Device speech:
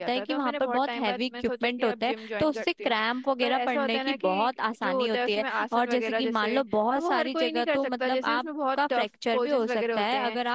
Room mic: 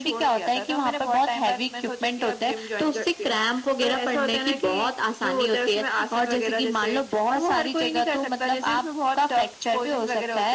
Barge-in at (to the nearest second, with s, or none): none